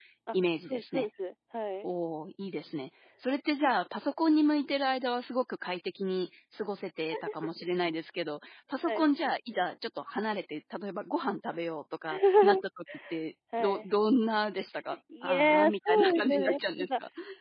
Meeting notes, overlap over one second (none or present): present